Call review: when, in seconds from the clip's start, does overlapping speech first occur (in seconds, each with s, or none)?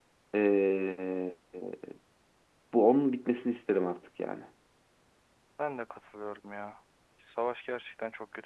none